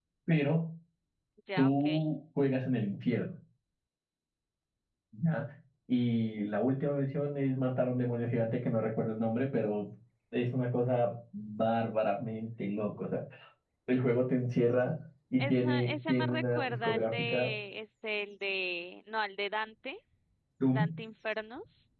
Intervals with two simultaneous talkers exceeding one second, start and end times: 15.4-17.5

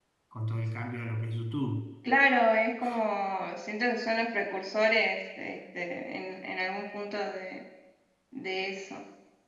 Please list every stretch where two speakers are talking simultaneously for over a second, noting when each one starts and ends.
none

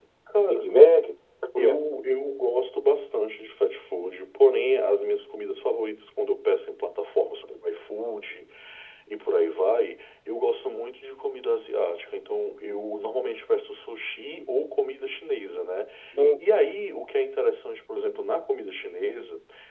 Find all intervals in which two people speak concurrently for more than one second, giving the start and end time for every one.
none

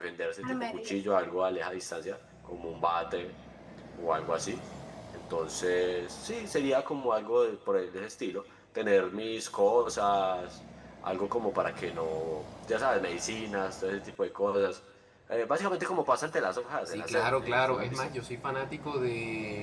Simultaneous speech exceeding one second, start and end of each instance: 16.9-18.1

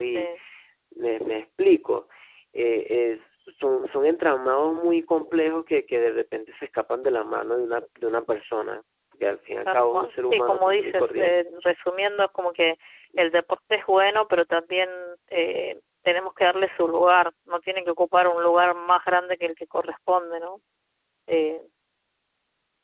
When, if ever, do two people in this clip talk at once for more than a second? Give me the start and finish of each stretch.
9.7-11.4

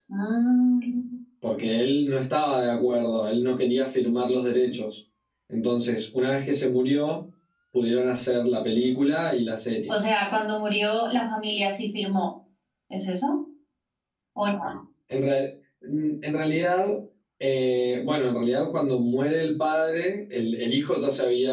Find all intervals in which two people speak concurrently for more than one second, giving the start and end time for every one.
none

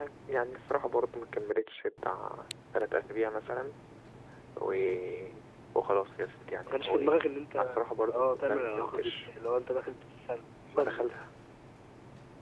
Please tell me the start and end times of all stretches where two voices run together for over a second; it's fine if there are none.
8.0-9.2

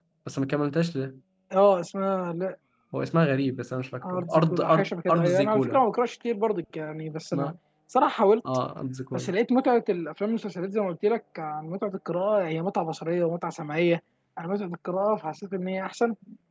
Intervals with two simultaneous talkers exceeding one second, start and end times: 4.1-5.8

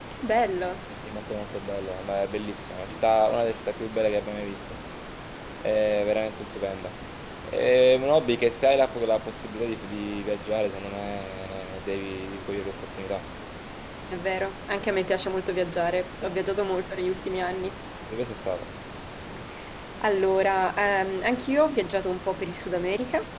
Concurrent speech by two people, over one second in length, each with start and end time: none

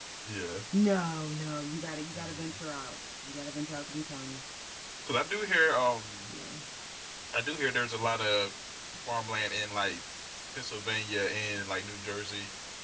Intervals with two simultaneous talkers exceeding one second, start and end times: none

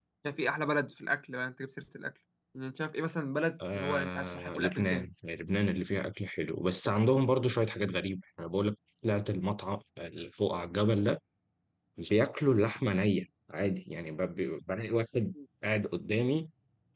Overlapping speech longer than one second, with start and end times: 3.8-5.1

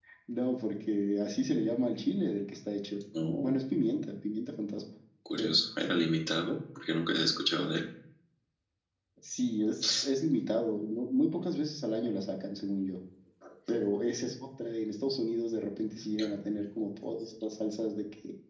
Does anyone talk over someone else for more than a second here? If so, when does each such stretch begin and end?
none

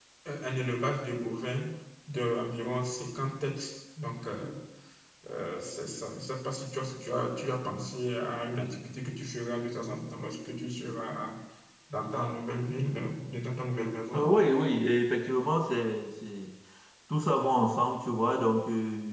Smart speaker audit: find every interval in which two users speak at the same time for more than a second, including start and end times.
none

